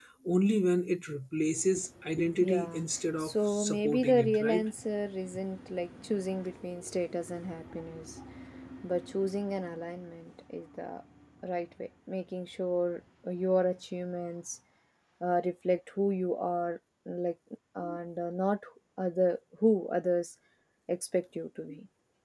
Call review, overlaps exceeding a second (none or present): present